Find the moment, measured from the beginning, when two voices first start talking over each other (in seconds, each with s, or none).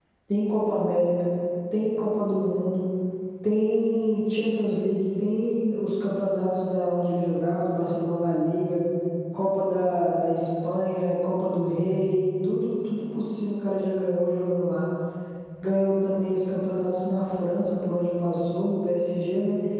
none